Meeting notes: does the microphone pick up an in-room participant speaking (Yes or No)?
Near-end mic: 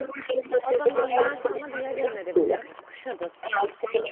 Yes